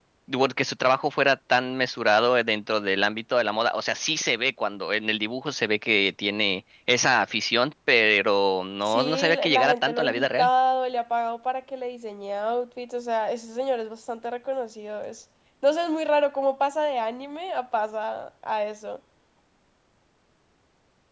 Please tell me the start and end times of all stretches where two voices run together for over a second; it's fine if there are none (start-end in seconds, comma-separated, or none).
8.9-10.5